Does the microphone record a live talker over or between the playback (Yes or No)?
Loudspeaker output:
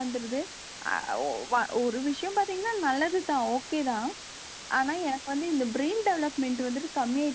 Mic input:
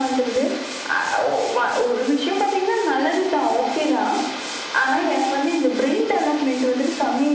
No